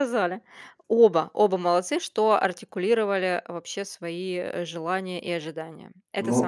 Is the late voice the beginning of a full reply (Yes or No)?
Yes